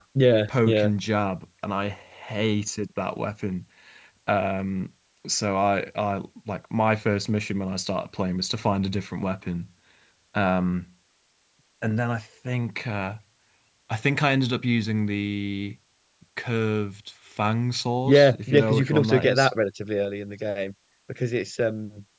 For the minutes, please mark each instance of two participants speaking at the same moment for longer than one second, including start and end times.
18.1-19.5

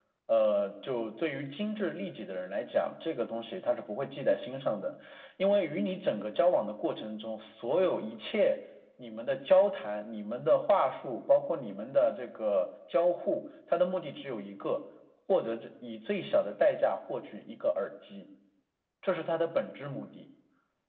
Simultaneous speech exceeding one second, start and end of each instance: none

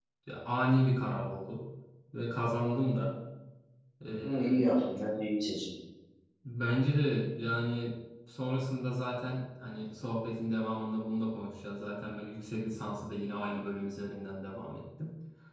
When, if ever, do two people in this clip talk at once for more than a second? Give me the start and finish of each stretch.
none

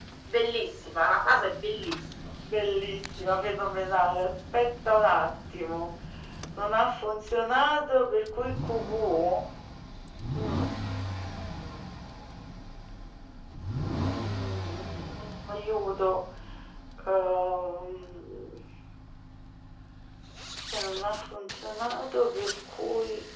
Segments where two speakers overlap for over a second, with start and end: none

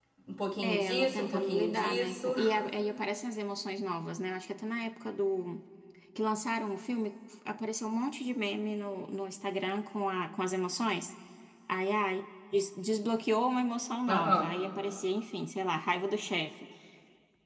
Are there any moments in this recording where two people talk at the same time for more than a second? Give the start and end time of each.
0.6-2.3

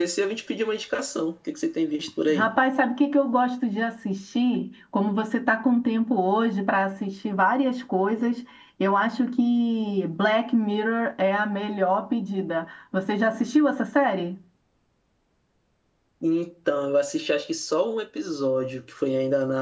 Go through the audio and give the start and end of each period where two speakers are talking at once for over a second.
none

